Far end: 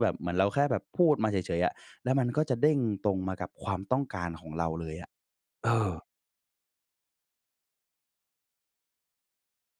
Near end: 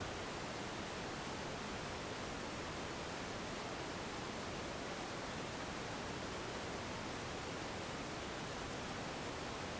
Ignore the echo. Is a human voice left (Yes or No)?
No